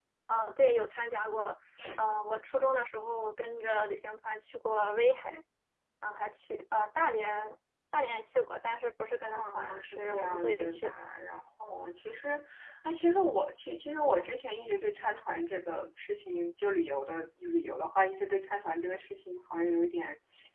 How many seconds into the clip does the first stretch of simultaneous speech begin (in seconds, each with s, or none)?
9.3 s